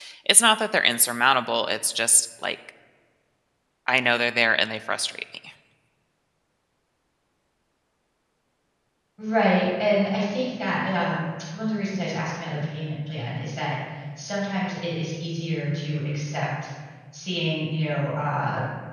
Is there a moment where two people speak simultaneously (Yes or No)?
No